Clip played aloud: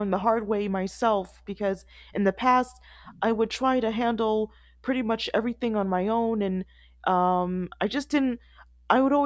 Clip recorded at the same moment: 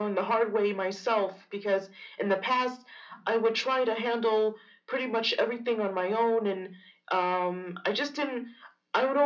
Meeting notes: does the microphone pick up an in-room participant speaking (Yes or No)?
No